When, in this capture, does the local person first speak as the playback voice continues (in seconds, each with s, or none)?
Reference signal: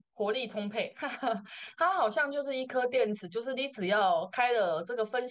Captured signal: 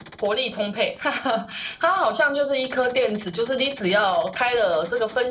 none